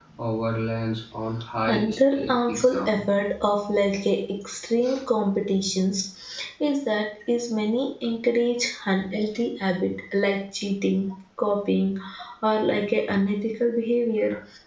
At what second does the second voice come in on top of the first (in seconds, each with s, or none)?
1.7 s